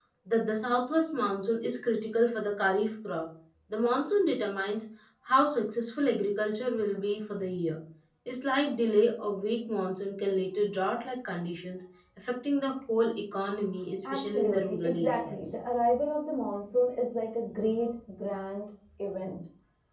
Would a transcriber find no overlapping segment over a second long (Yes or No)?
No